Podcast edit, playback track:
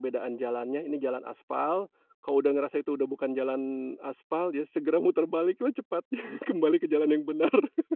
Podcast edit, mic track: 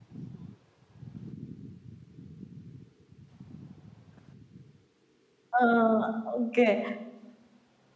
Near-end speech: present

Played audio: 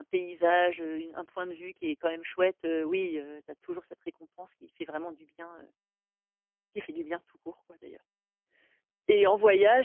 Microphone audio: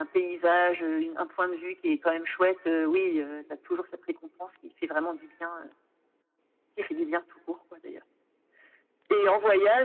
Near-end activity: none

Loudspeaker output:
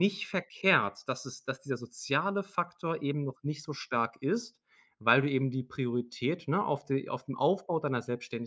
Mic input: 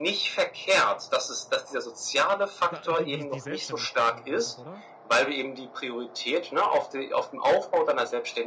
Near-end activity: present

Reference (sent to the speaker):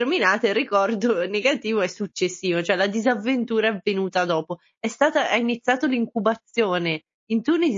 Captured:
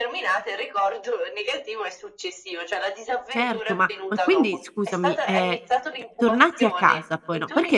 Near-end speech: present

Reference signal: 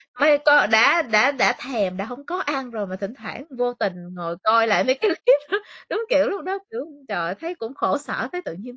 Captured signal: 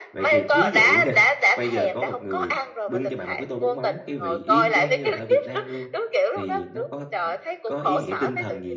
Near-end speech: present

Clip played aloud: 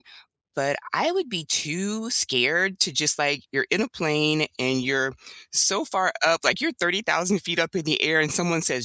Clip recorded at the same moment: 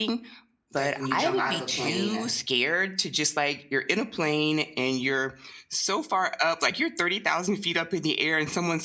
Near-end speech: present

